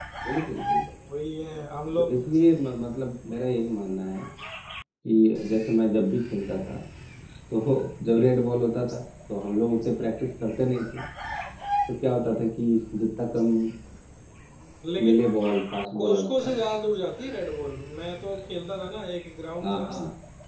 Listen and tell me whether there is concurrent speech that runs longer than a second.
No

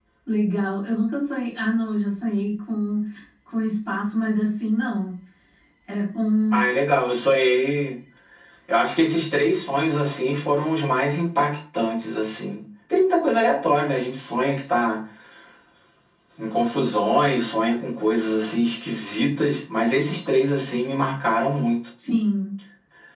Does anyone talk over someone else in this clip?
No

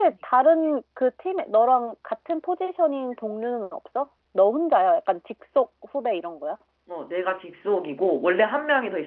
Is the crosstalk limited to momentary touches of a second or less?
Yes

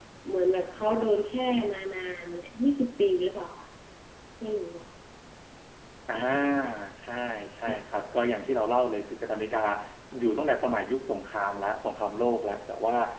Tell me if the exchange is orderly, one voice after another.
Yes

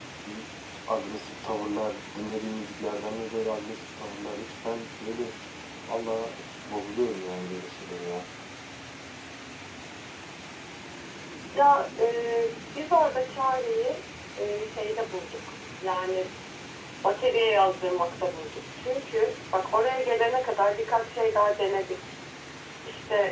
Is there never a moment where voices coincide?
Yes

